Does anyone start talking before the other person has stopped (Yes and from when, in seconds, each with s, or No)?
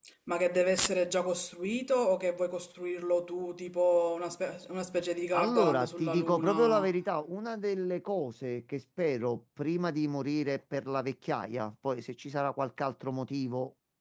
Yes, from 5.3 s